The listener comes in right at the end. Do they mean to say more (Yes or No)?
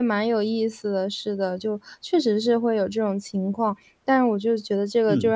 No